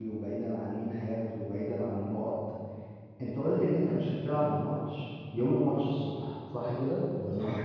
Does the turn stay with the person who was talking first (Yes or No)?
No